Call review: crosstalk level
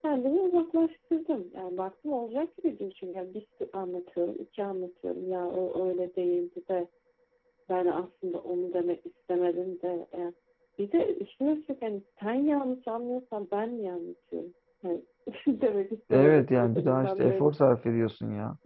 present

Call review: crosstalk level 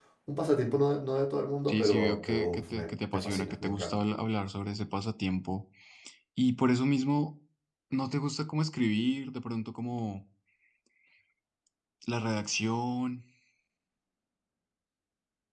present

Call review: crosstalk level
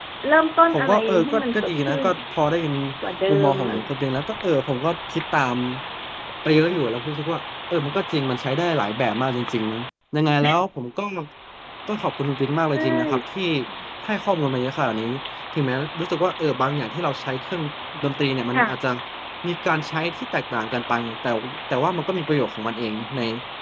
present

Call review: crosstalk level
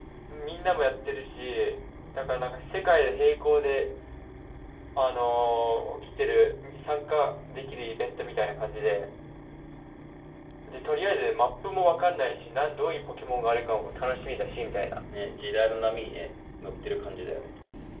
none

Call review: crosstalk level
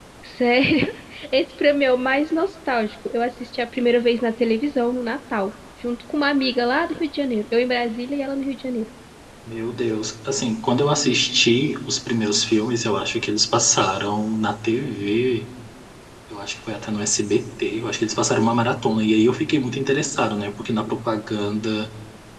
none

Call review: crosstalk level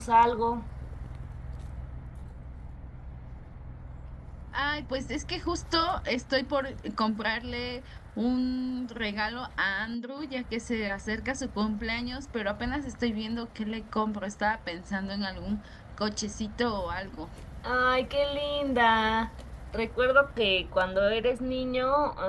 none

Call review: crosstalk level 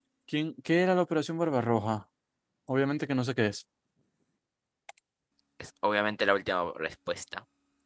none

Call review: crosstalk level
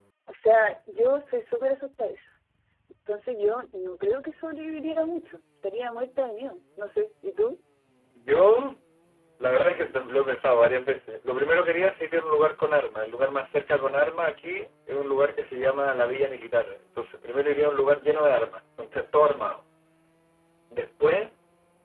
none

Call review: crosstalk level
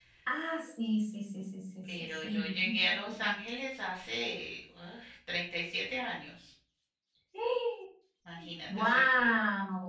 present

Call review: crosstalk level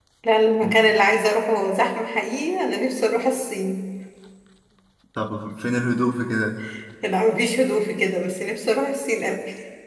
none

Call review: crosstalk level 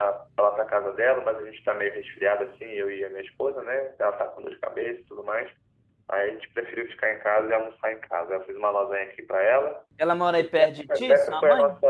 present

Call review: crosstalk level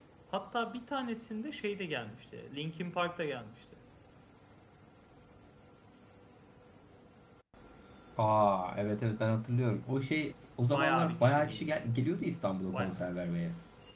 present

